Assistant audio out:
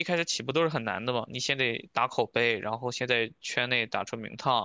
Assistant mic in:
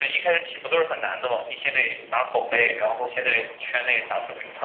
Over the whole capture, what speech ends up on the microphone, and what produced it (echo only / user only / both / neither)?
echo only